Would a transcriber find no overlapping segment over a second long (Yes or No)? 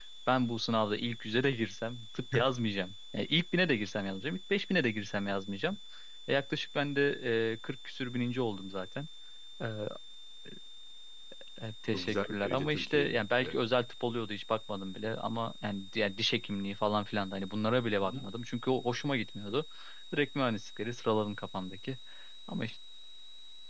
No